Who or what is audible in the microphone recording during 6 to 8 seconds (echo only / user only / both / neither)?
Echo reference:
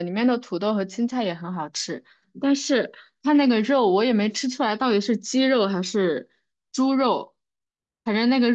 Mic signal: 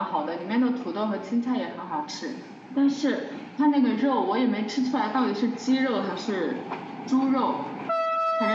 echo only